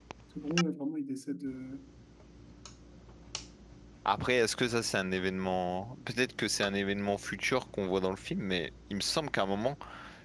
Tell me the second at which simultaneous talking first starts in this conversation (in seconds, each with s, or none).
none